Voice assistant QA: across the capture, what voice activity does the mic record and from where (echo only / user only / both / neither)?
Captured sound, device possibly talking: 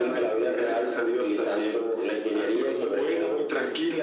echo only